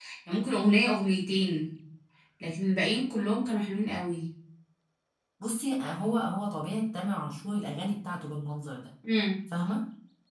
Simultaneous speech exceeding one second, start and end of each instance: none

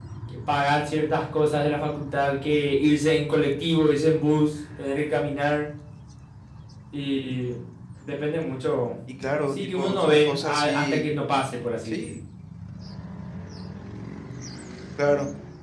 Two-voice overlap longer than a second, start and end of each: 9.5-11.1

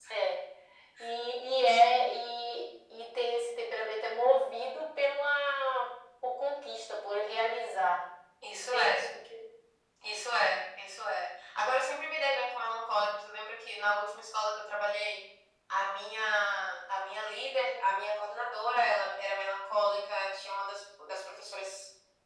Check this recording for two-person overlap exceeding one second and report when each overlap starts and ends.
none

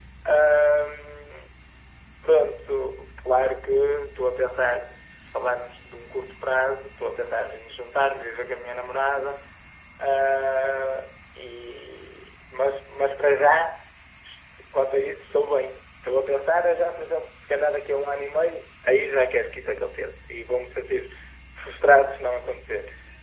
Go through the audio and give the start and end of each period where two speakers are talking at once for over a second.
none

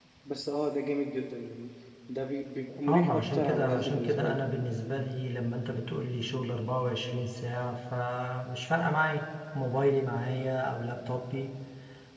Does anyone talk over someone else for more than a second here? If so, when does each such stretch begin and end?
2.9-4.4

